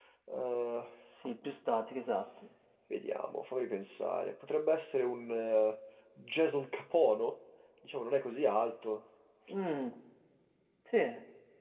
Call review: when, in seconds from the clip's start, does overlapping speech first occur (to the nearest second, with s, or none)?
none